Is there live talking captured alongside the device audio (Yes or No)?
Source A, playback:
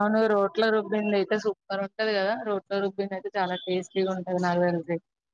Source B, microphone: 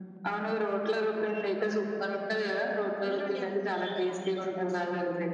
Yes